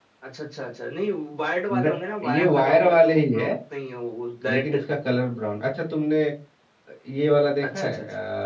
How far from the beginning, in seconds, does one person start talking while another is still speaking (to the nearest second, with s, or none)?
2 s